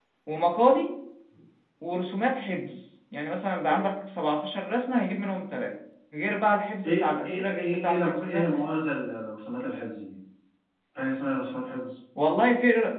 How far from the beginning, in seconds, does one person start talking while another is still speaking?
6.8 s

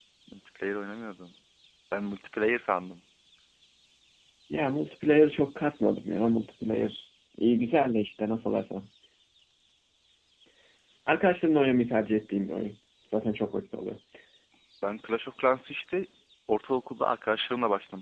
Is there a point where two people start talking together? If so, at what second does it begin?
none

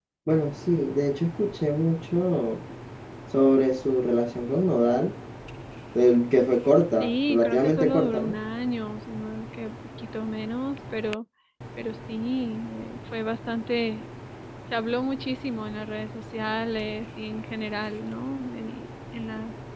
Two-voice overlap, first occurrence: 7.0 s

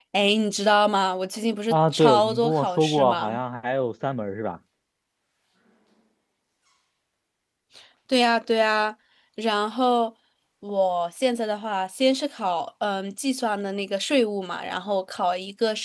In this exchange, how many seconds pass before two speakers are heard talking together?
1.7 s

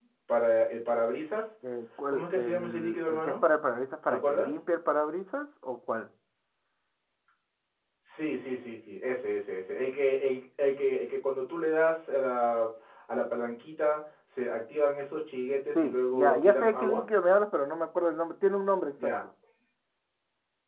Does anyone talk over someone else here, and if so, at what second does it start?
2.1 s

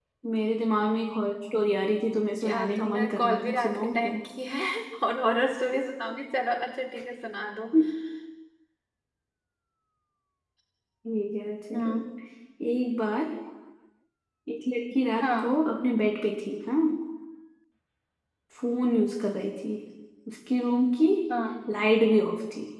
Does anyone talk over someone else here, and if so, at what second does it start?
2.4 s

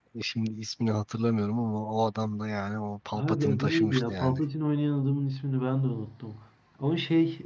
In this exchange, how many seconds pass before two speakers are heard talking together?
3.2 s

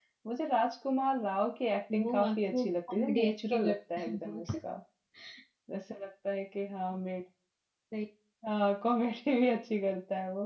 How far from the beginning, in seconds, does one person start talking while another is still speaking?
1.9 s

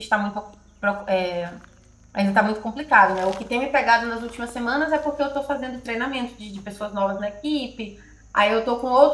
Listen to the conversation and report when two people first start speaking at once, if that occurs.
none

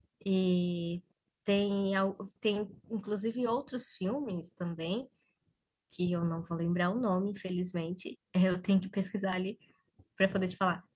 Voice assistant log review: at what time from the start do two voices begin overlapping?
none

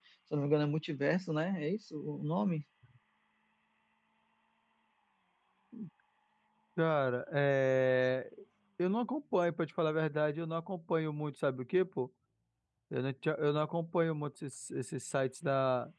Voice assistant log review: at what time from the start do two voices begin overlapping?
none

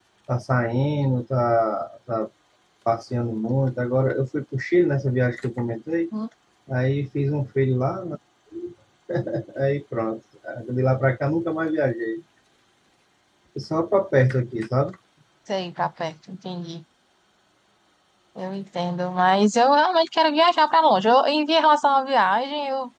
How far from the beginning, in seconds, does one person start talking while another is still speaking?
none

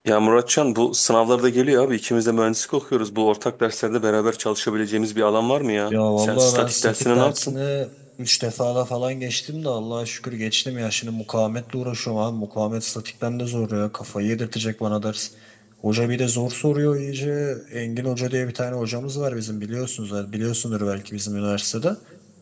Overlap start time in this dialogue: 5.9 s

